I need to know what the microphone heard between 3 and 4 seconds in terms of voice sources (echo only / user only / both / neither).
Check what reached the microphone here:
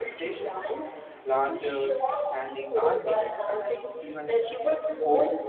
both